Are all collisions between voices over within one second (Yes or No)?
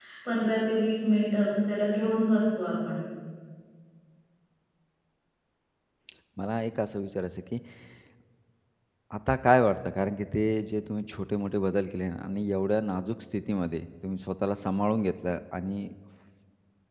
Yes